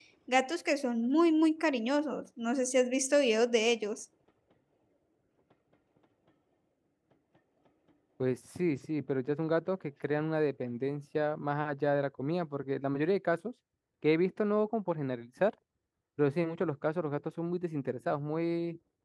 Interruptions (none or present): none